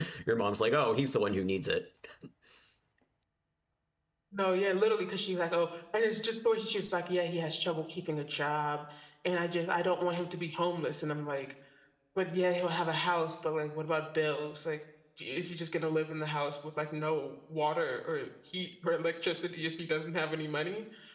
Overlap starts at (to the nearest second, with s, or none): none